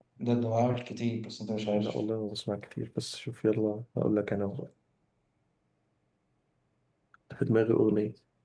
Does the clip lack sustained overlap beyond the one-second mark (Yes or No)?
Yes